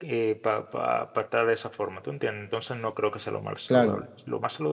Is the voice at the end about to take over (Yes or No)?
No